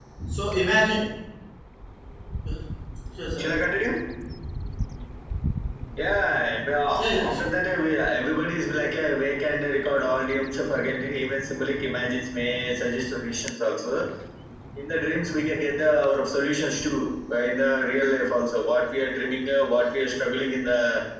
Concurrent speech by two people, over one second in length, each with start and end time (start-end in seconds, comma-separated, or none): none